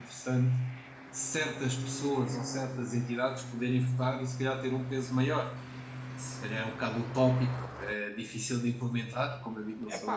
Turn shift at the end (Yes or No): No